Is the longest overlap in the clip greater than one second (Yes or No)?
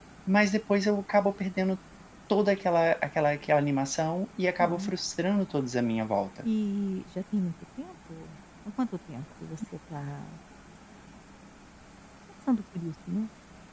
No